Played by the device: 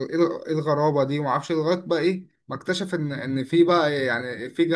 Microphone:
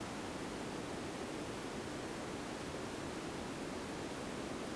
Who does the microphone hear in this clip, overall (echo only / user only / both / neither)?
neither